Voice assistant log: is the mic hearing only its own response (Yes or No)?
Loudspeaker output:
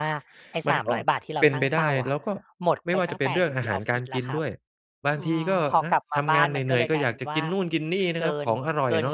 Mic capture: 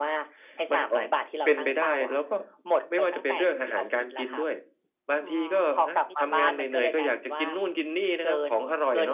No